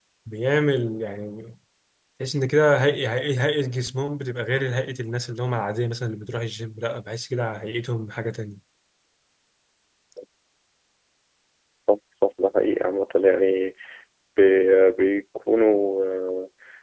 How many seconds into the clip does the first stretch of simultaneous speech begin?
none

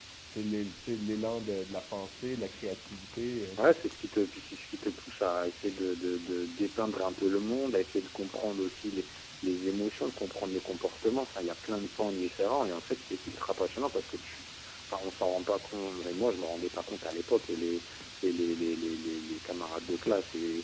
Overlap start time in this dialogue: none

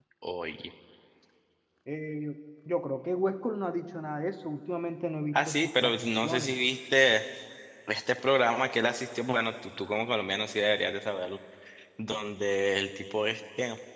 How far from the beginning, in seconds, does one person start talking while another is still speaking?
5.3 s

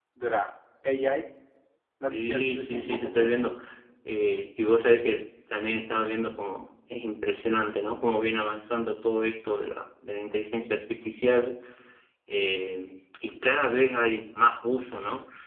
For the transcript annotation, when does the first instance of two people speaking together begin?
2.1 s

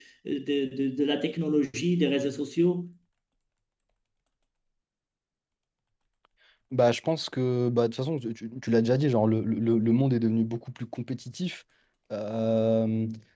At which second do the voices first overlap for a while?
none

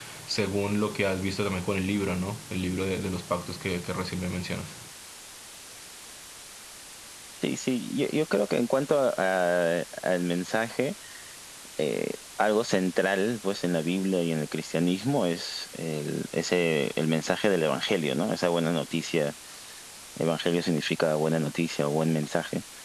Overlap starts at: none

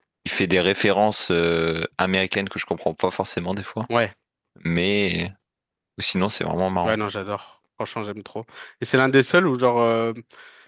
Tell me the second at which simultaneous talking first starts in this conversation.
none

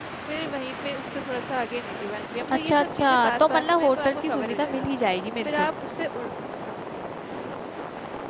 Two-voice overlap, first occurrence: 2.7 s

